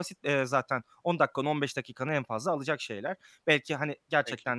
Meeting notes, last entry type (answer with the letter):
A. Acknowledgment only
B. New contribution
A